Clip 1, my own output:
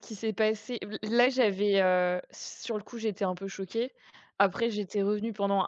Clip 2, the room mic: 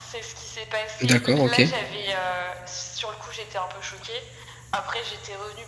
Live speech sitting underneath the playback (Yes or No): No